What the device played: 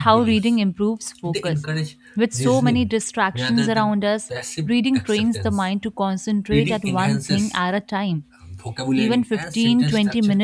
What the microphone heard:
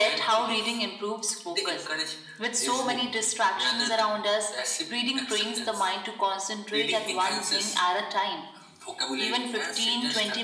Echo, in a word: present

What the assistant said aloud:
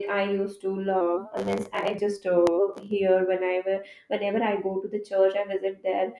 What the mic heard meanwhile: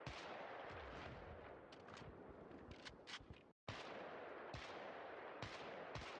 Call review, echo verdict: none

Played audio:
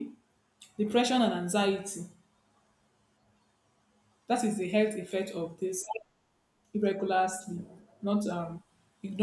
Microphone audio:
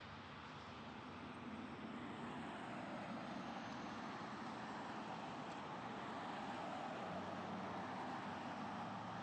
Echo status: none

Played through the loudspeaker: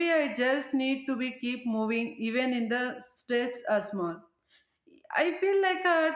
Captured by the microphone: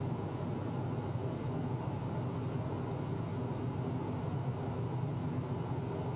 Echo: none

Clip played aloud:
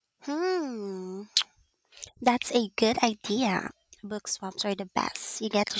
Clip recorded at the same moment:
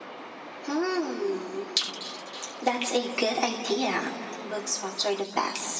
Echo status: present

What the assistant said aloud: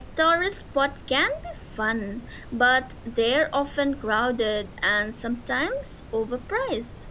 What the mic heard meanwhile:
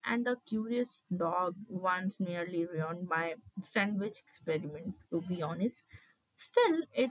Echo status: none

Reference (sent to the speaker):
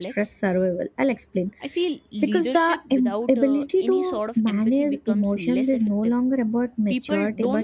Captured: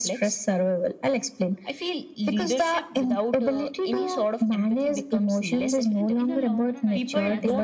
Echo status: present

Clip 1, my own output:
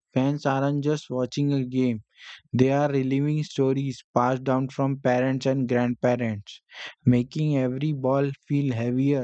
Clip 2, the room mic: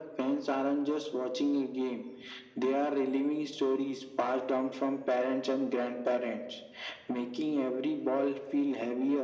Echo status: present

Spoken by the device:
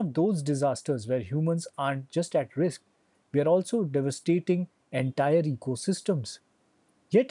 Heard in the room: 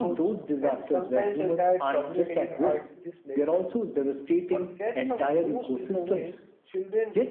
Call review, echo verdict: present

